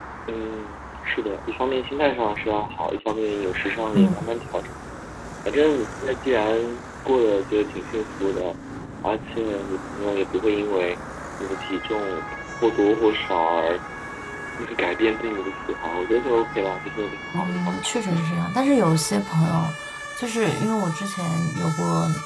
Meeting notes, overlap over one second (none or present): none